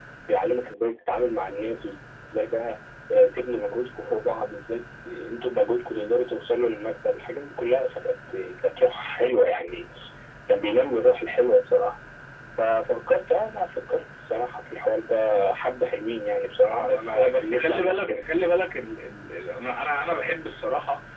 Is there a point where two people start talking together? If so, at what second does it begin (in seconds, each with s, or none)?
16.7 s